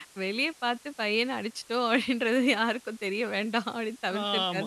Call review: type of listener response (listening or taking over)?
taking over